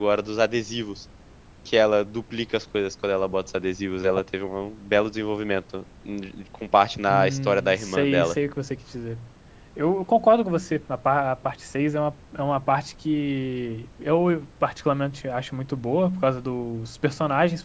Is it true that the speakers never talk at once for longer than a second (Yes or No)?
No